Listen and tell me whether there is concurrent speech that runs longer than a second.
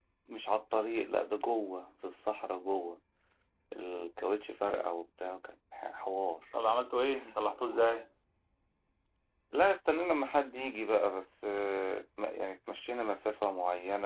No

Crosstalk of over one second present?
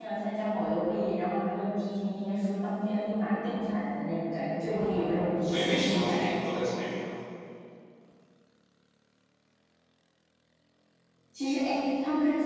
Yes, from 4.6 s

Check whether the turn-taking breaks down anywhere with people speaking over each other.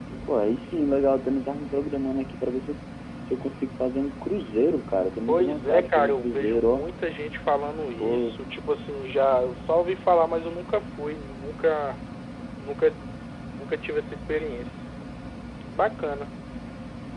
Yes, from 5.3 s

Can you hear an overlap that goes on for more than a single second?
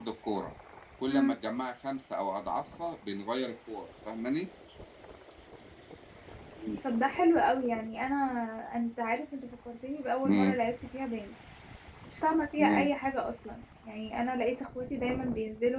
No

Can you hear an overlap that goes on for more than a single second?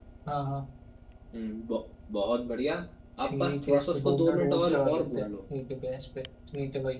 Yes, from 3.2 s

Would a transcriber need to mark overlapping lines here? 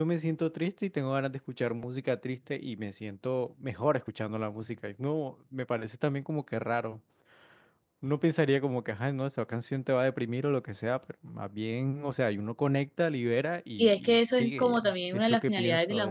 Yes, from 13.8 s

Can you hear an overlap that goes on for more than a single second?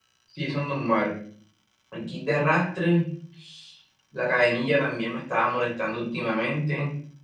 No

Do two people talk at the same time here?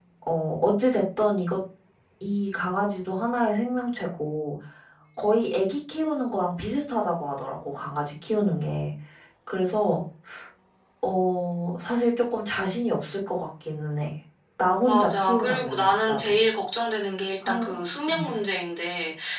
Yes, from 14.8 s

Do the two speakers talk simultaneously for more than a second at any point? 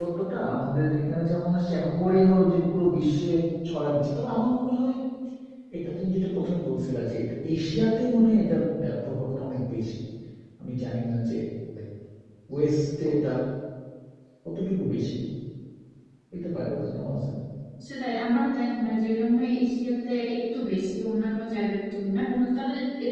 No

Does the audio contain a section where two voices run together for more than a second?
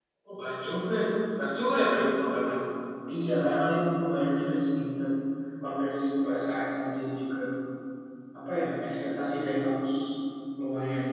No

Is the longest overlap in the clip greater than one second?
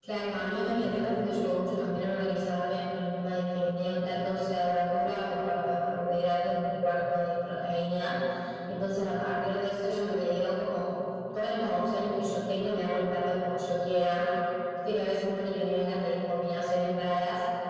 Yes, from 0.5 s

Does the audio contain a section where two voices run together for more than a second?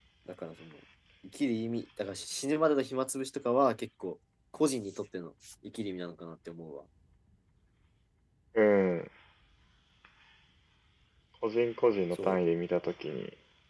No

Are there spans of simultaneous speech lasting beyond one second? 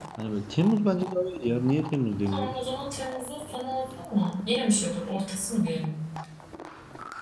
No

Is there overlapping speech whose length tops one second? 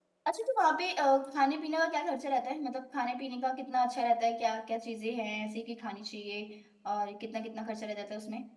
No

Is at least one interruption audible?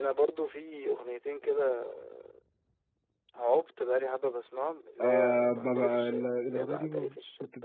Yes, from 5.0 s

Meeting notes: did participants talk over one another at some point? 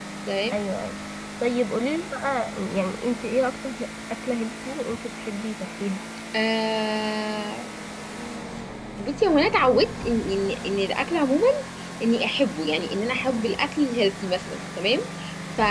No

